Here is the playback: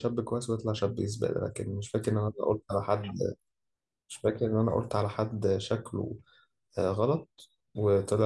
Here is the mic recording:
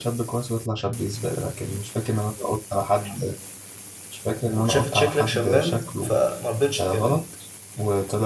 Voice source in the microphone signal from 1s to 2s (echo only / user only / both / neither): echo only